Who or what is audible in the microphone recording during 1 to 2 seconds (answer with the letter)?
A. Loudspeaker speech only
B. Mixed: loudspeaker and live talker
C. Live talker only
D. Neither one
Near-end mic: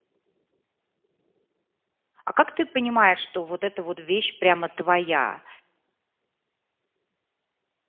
D